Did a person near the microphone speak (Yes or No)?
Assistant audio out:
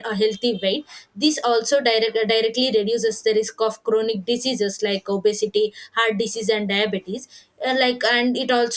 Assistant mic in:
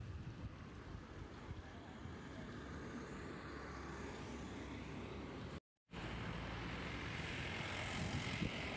No